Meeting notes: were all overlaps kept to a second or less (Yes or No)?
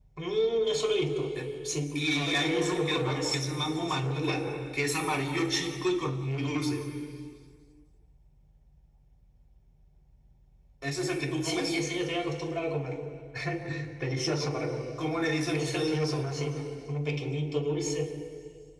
No